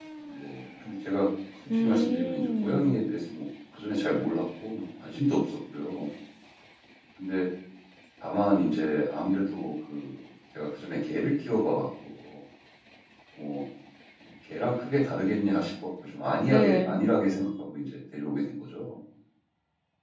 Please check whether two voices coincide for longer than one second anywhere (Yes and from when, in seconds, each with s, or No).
Yes, from 1.7 s